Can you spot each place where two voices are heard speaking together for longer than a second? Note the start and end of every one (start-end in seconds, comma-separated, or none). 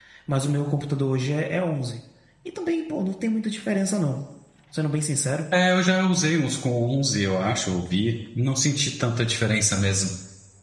none